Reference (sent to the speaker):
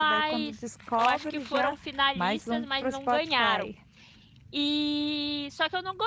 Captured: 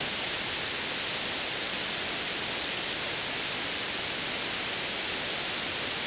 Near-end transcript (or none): none